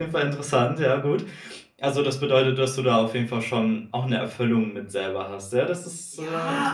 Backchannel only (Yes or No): No